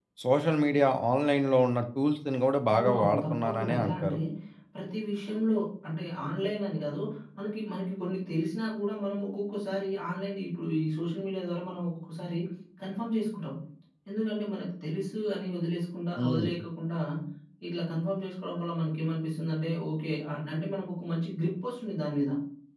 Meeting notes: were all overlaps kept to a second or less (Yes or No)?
No